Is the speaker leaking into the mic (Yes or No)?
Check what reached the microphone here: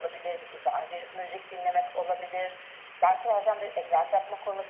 Yes